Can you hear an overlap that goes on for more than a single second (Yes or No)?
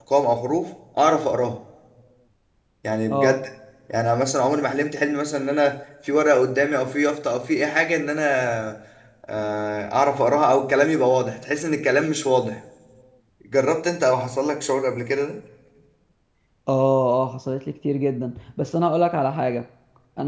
No